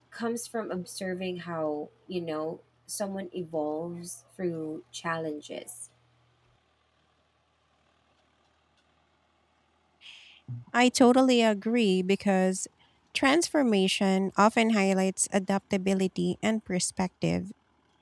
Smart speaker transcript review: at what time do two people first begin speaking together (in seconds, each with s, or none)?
none